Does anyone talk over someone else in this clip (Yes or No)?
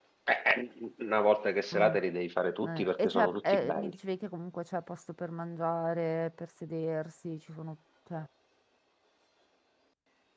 Yes